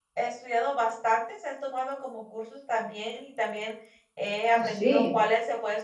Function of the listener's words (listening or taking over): listening